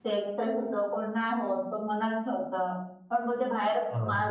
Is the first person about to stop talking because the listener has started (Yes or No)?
No